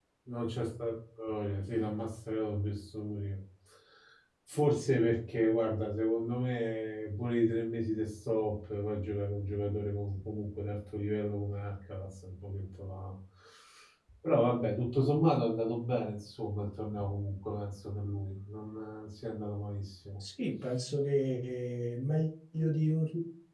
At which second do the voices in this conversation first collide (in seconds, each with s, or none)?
none